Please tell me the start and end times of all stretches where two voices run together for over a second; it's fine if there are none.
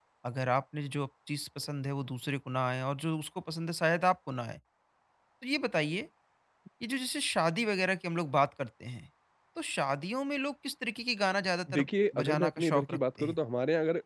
11.8-13.4

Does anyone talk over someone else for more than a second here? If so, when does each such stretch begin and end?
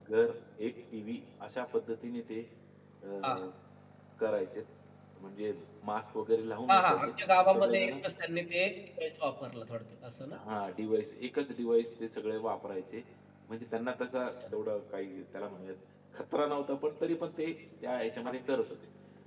6.7-7.9

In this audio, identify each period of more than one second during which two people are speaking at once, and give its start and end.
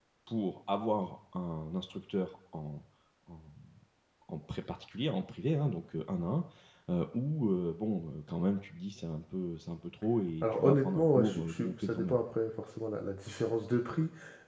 10.4-12.2

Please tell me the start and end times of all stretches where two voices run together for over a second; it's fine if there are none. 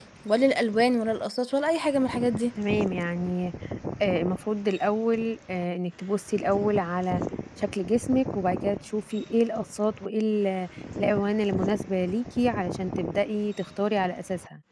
none

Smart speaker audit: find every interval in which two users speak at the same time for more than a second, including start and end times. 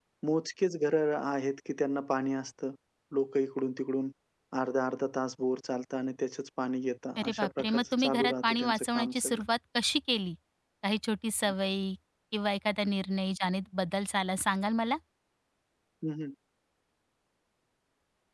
7.2-9.4

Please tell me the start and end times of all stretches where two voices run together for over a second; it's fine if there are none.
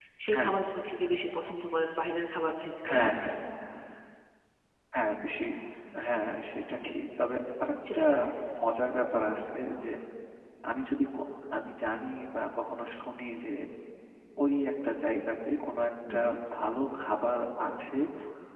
none

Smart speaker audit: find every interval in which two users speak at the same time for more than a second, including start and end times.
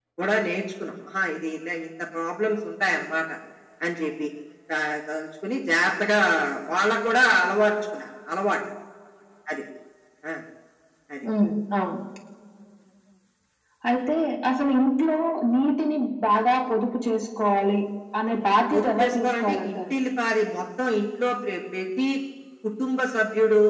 18.5-20.0

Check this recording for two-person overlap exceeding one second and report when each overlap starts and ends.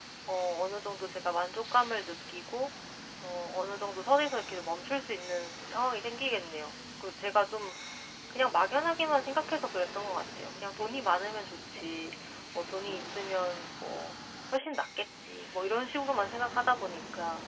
none

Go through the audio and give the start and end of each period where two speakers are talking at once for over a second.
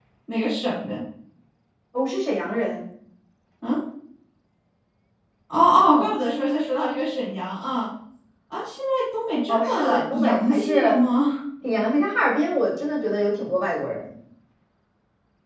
9.5-11.0

